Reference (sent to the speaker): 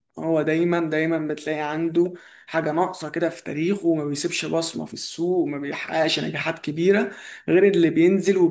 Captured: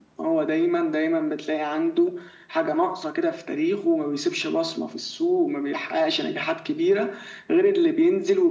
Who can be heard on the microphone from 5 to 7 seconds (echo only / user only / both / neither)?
echo only